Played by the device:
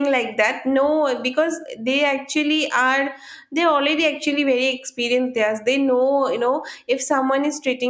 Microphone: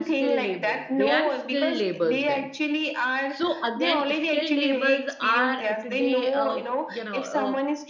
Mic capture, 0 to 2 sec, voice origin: both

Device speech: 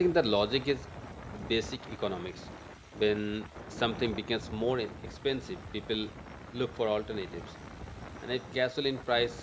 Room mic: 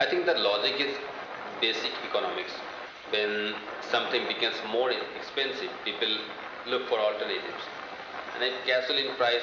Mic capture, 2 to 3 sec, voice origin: echo only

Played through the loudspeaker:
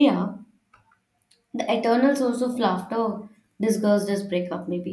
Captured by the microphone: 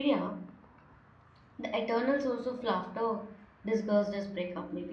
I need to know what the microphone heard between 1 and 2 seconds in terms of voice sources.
echo only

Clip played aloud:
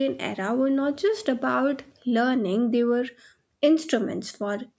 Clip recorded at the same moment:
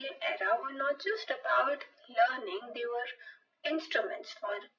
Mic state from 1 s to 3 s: echo only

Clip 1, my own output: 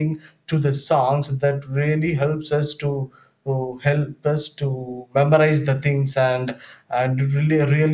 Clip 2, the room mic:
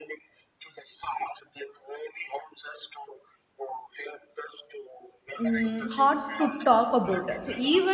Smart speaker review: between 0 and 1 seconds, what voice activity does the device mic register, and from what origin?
echo only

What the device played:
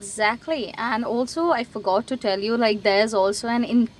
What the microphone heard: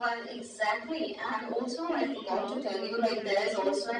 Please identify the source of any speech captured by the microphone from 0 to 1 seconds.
echo only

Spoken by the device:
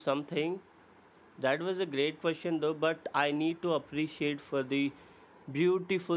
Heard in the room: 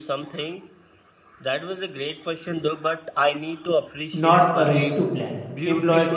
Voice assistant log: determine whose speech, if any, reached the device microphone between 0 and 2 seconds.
echo only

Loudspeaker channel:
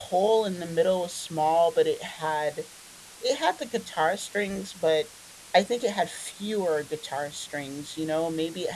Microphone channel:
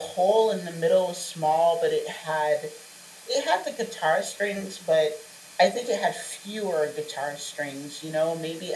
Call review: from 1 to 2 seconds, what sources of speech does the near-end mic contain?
echo only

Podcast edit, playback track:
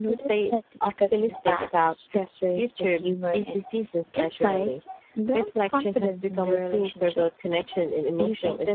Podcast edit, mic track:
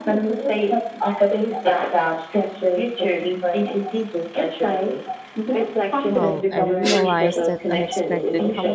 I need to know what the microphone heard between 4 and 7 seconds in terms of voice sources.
both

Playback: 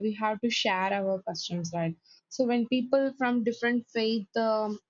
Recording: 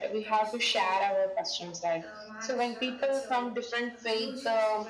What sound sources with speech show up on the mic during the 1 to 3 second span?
both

